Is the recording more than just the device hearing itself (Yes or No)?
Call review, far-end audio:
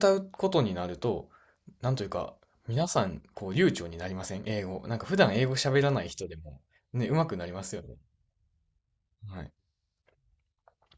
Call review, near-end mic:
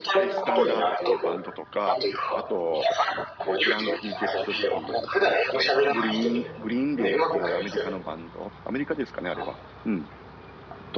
Yes